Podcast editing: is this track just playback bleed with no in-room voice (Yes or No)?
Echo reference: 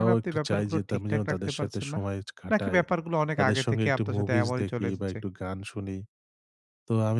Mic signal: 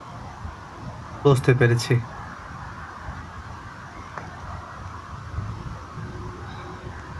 No